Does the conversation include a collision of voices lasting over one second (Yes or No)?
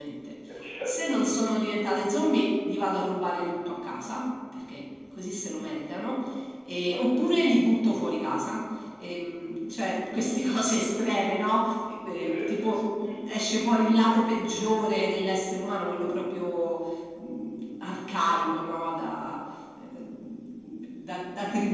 No